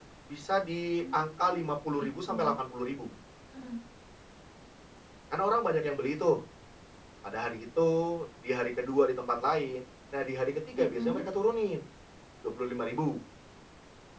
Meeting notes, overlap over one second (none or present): present